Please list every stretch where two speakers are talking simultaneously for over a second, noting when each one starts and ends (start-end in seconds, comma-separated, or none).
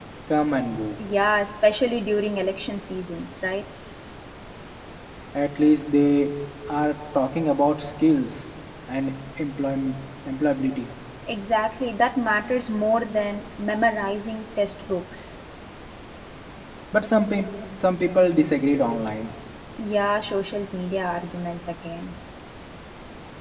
none